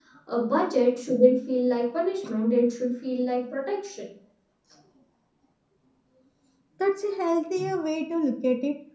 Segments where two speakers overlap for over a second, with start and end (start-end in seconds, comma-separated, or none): none